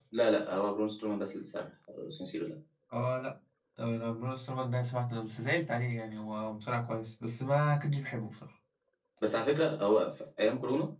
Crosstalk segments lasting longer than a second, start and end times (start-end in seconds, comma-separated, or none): none